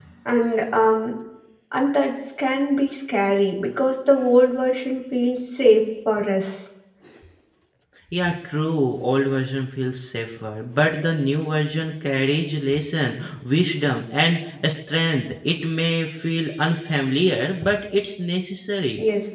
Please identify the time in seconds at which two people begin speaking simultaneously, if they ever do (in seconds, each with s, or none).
none